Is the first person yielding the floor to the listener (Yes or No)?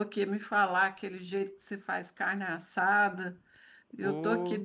No